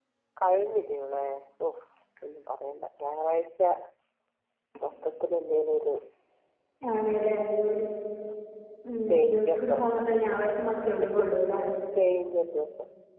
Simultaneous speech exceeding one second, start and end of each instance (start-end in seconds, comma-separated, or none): 9.1-10.5